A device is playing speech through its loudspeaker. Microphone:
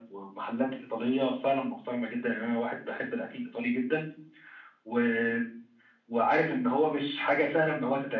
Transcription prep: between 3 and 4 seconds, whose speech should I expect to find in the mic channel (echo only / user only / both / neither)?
echo only